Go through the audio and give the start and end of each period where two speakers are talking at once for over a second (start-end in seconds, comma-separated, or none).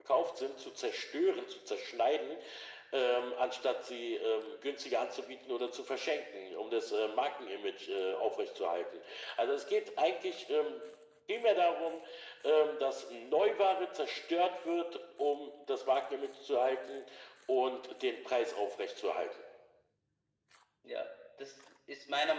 none